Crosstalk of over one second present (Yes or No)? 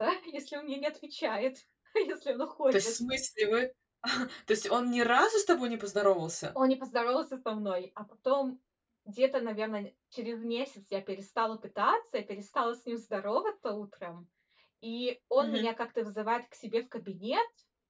No